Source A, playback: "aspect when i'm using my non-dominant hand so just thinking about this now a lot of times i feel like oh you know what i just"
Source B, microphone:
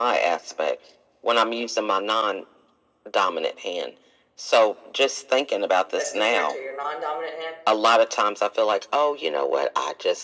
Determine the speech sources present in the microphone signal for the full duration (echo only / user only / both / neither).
both